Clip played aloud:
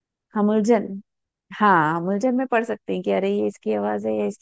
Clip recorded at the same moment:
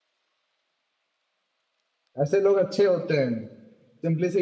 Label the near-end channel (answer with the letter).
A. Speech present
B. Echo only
A